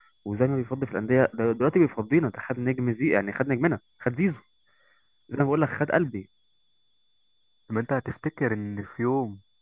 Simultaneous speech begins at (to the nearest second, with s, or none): none